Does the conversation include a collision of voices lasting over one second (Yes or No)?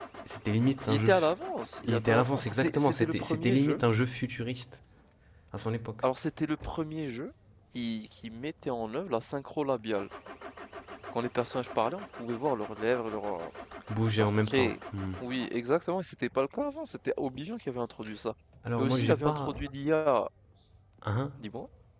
Yes